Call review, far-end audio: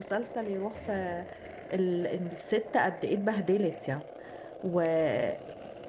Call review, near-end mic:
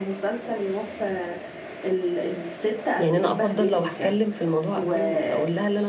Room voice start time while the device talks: 3.0 s

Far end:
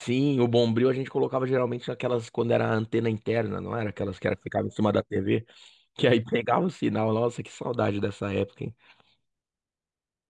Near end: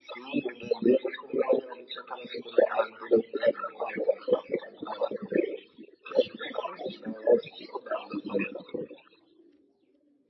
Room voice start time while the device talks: none

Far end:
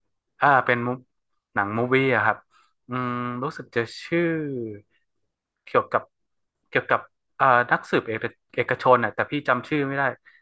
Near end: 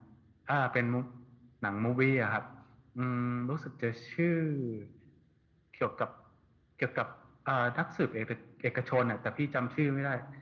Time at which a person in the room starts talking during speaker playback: none

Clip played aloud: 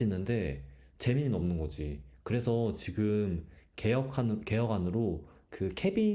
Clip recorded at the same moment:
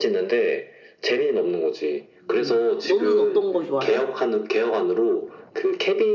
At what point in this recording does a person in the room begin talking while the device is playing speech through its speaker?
2.1 s

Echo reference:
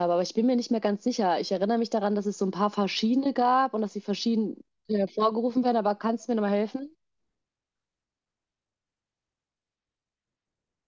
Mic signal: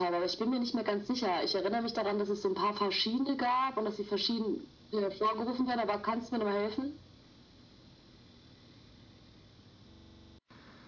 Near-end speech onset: none

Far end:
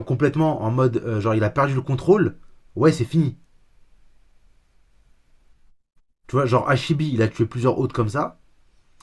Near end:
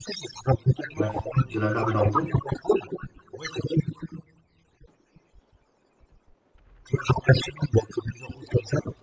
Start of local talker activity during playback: 1.0 s

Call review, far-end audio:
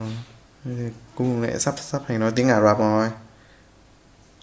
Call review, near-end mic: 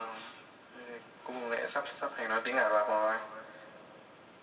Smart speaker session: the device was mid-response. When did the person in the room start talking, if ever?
none

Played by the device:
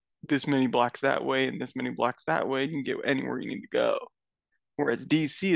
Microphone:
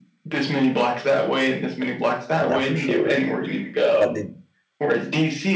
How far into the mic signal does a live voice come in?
2.4 s

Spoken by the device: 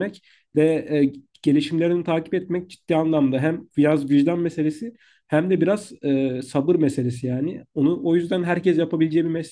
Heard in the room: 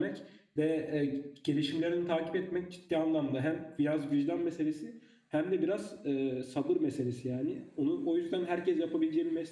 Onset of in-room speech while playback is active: none

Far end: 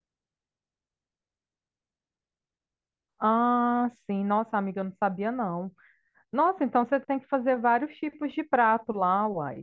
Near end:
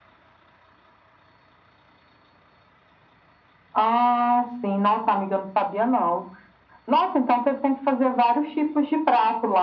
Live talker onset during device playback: none

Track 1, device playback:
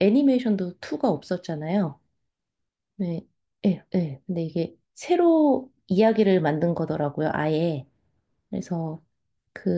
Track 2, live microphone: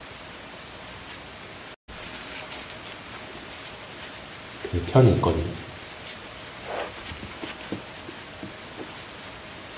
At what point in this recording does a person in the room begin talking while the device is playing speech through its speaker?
4.6 s

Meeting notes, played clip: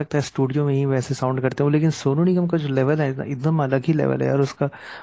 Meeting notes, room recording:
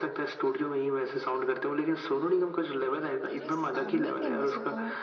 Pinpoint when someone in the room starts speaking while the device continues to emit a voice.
3.1 s

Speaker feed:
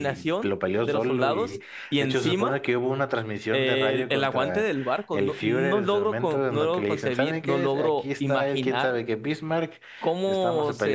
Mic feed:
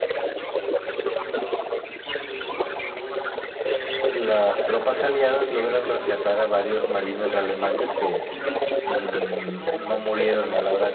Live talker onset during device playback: 4.1 s

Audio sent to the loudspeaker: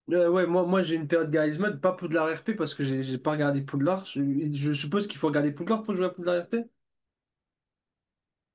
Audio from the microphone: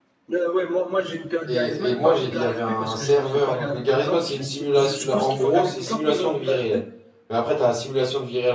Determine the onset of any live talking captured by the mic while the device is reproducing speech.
1.5 s

